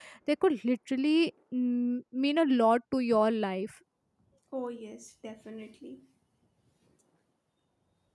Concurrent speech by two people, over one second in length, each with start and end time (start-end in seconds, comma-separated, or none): none